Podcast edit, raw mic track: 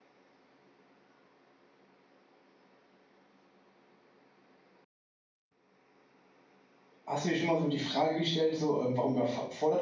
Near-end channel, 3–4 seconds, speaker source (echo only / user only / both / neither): neither